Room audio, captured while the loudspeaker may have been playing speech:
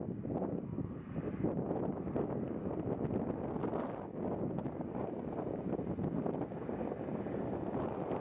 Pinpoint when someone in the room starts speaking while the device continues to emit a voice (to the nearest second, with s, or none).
none